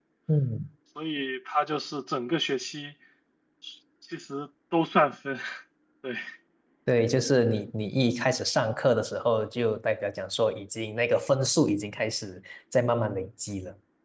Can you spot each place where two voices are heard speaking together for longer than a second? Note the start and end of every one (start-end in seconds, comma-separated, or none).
none